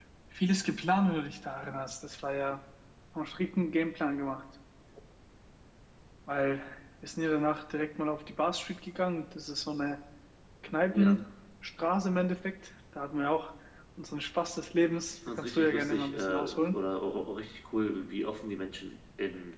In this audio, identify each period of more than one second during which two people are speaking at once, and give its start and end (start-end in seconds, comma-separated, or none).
15.4-16.8